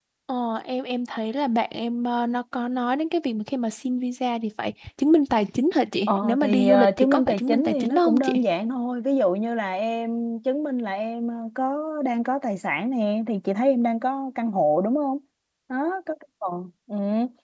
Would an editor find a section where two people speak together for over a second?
Yes, from 6.1 s

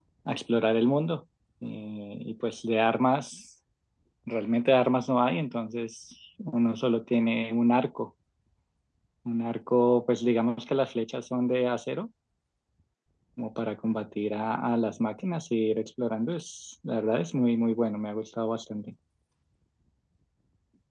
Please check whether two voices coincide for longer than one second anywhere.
No

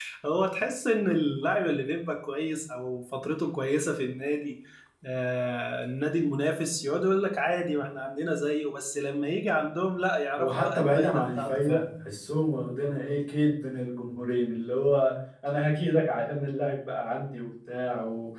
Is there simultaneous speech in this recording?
Yes, from 10.4 s

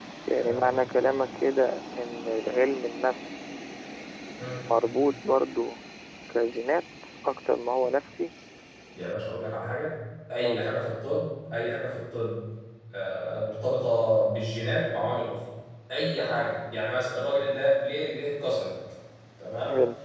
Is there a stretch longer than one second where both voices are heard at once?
No

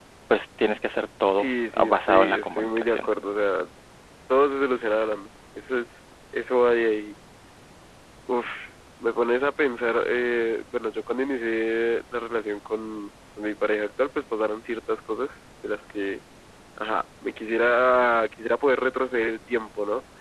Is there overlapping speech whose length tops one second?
Yes, from 1.4 s

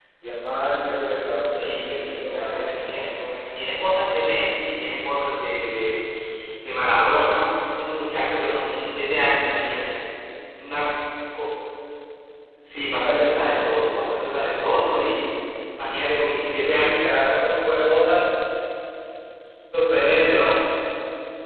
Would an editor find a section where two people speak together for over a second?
Yes, from 1.5 s

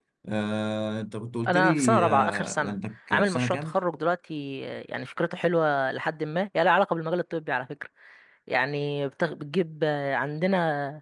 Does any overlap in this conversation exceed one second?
Yes, from 1.5 s

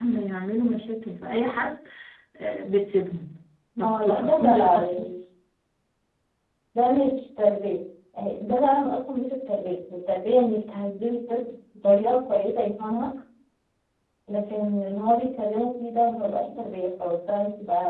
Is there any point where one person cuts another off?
Yes, from 3.8 s

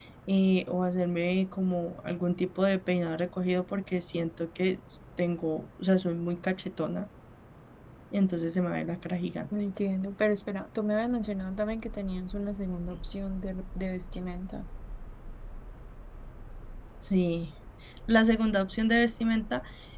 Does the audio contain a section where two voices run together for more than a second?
No

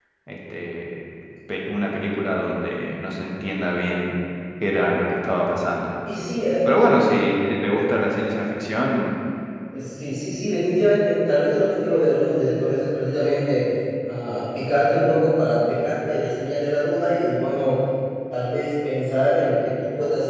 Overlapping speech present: No

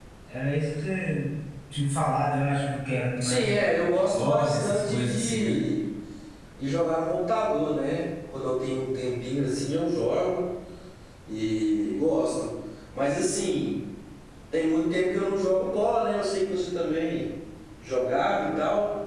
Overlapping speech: Yes, from 3.2 s

